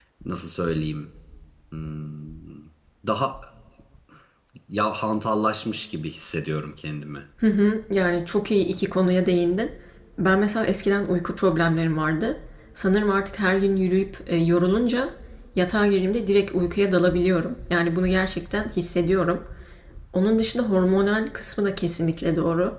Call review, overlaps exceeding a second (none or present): none